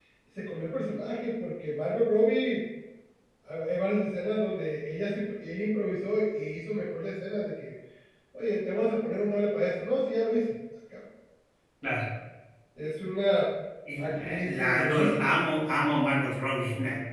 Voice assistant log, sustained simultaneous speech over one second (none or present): present